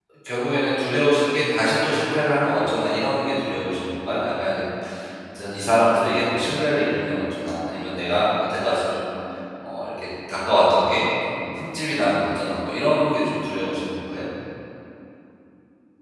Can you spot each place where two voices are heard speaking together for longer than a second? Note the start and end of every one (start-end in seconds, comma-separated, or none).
none